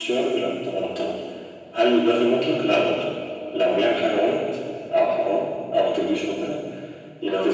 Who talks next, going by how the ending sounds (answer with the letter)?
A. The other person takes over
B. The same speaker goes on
B